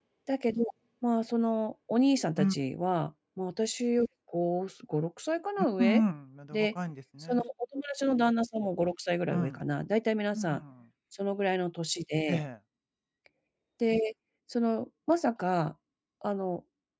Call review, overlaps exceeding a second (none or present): none